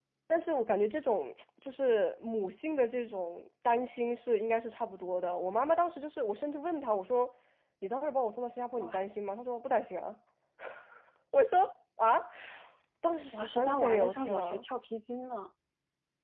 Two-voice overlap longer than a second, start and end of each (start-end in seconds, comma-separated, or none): 13.3-14.6